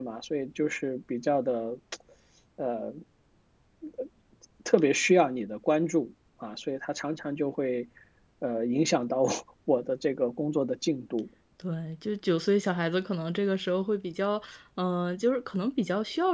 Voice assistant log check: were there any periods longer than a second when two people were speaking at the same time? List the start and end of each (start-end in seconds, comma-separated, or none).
none